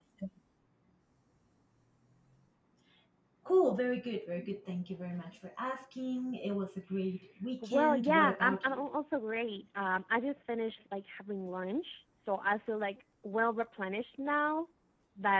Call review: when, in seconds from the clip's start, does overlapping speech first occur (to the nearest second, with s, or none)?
8 s